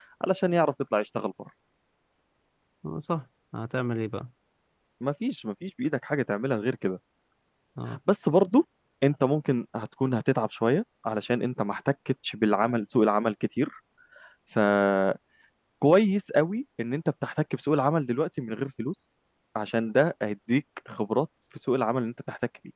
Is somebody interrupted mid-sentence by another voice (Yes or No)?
No